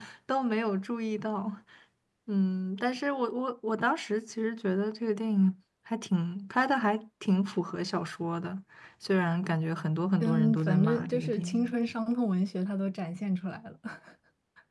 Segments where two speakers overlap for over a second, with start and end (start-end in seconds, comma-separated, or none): 10.2-11.7